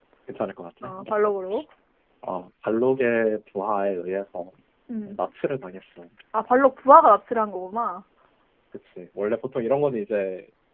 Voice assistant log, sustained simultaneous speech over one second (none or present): none